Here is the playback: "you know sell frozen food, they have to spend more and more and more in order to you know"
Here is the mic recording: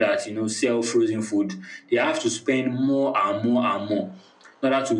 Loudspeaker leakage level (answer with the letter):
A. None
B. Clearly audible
B